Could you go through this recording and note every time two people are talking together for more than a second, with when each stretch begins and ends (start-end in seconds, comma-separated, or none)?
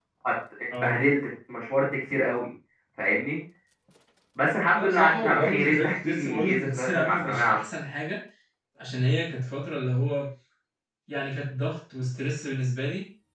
4.7-7.6